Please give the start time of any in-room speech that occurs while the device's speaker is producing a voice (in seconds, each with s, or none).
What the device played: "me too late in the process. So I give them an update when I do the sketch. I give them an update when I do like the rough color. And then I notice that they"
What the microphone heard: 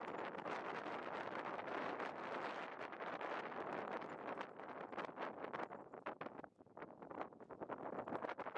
none